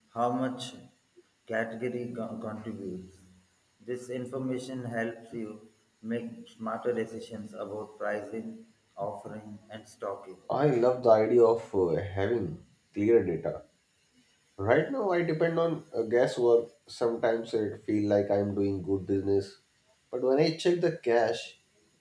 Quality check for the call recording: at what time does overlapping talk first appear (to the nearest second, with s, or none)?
none